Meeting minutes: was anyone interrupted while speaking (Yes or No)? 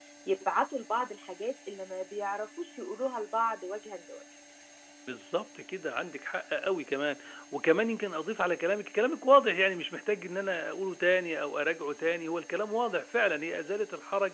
No